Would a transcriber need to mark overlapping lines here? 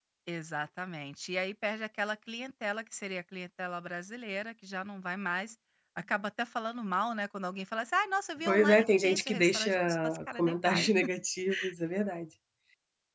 Yes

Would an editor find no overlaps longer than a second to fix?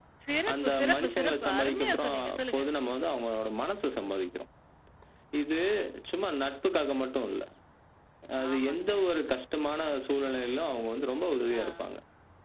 No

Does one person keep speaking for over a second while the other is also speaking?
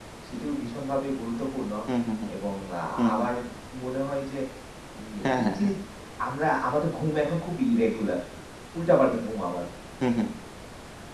No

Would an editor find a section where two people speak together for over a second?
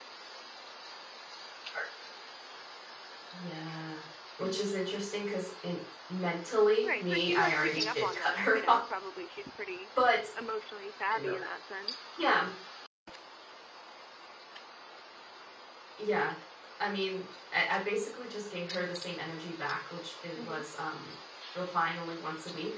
Yes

